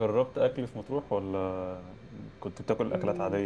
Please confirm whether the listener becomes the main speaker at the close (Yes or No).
Yes